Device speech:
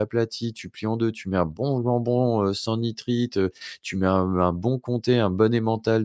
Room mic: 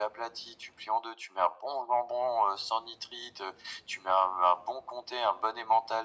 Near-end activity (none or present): none